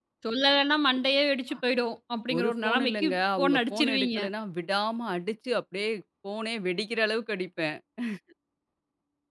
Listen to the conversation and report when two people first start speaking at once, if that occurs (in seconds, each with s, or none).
2.4 s